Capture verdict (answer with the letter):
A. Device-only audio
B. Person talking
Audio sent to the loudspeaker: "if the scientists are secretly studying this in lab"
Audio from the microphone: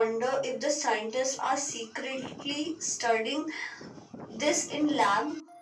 A